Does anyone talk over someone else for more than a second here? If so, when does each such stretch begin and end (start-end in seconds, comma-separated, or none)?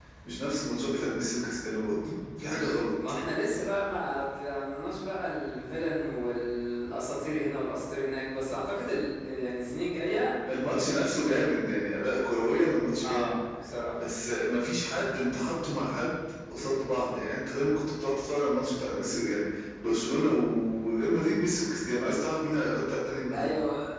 none